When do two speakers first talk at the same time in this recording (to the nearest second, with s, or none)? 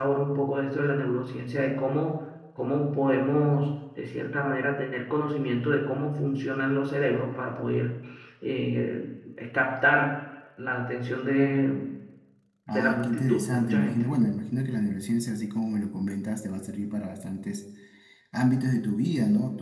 13 s